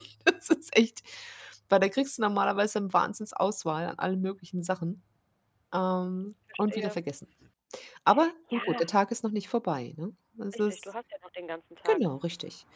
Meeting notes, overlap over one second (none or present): none